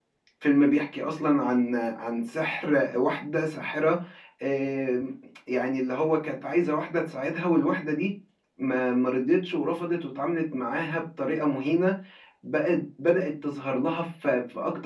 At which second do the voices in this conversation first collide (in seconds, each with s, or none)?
none